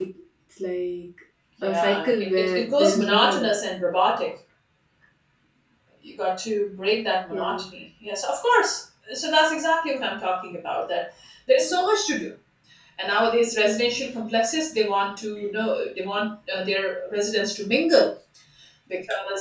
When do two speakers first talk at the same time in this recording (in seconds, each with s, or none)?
1.6 s